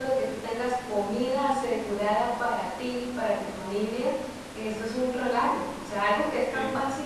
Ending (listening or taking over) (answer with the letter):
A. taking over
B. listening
B